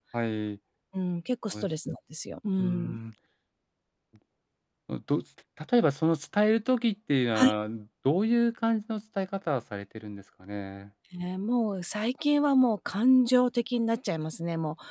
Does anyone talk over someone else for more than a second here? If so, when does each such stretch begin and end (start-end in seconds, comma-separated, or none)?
none